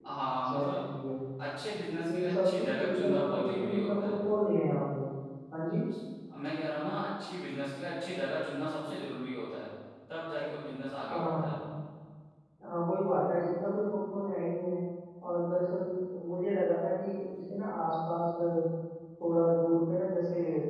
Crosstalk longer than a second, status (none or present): present